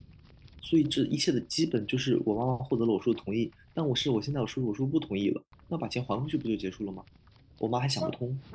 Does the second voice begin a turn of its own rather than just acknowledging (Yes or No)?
Yes